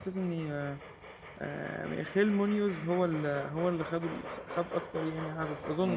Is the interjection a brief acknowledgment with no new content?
No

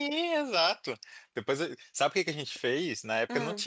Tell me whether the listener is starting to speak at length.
No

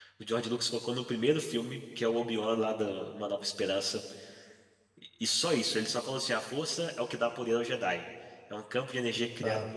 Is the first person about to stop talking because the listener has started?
No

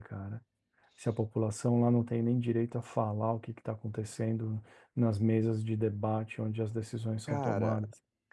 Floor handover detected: Yes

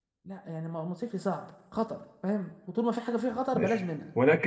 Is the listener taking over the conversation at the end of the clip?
Yes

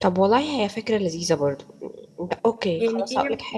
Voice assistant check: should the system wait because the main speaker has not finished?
No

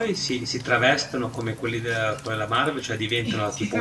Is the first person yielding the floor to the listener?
Yes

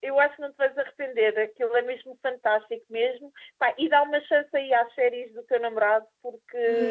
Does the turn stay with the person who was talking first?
No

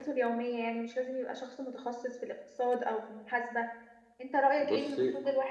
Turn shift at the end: No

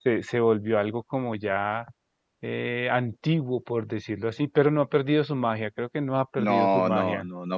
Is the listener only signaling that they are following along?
No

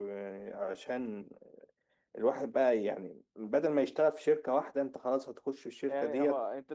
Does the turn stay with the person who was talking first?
No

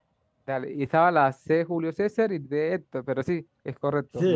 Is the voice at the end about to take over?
Yes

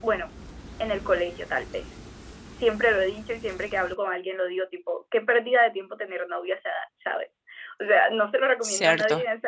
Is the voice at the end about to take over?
No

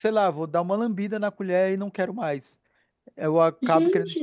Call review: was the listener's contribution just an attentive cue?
Yes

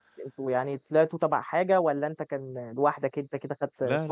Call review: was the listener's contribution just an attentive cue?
No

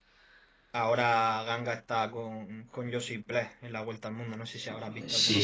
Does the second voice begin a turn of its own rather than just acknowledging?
Yes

